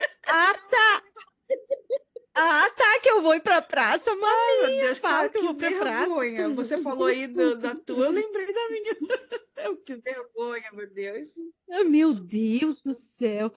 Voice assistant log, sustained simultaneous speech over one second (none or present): present